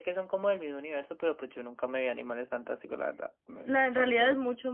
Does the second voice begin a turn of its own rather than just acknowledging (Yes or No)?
Yes